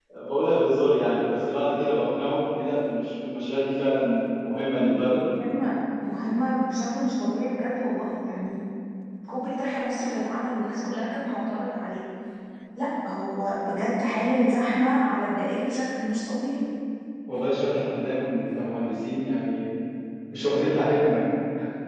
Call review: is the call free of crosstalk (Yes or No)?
Yes